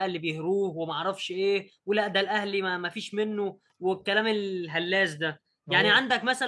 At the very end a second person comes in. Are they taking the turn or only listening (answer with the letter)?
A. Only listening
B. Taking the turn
A